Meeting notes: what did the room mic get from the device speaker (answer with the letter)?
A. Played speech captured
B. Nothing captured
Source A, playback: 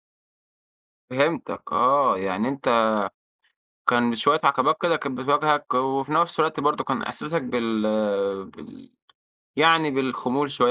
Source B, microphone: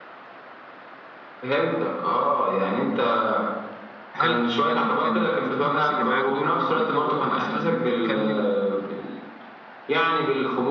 A